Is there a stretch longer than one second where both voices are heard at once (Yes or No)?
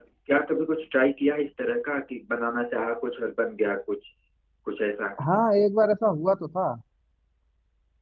No